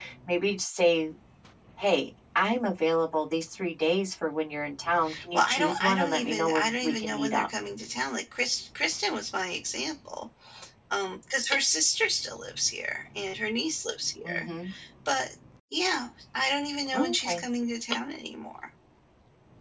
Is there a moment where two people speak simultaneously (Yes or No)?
Yes